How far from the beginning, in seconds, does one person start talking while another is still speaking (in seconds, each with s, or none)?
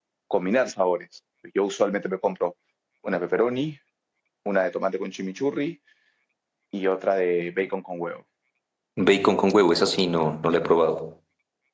none